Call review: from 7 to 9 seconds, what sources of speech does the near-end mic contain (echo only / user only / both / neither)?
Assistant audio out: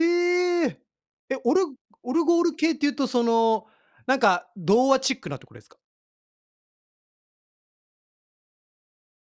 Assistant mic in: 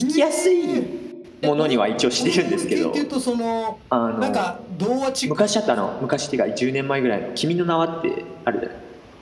user only